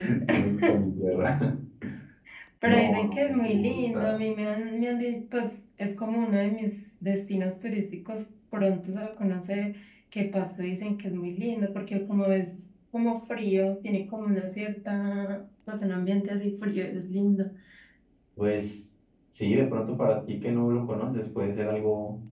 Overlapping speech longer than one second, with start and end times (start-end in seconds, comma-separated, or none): 2.6-4.2